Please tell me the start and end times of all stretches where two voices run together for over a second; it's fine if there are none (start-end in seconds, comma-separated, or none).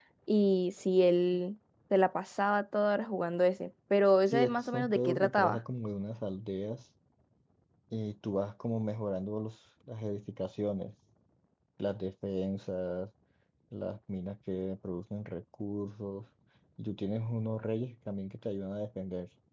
4.3-5.6